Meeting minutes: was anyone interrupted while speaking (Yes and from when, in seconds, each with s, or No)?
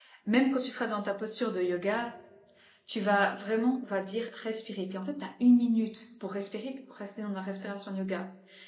No